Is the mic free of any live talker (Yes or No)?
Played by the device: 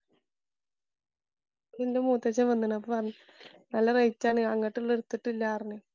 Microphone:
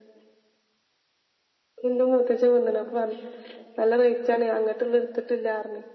Yes